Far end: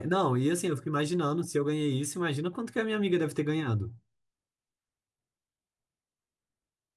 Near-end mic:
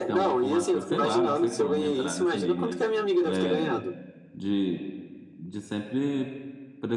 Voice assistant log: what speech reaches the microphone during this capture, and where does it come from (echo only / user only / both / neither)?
both